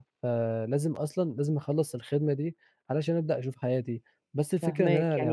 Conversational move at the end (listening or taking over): taking over